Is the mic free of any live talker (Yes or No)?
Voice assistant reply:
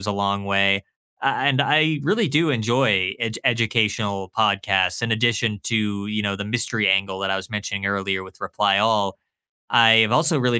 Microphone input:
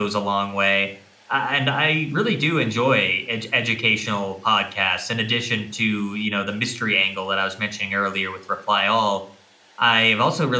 Yes